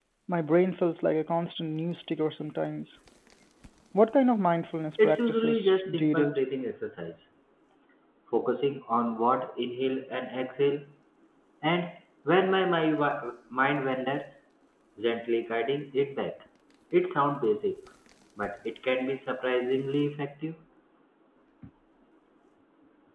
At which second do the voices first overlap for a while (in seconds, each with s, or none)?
5.0 s